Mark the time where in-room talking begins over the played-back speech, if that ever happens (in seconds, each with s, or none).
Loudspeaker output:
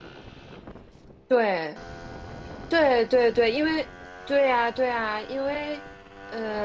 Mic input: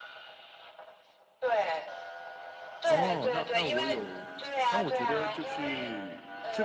2.8 s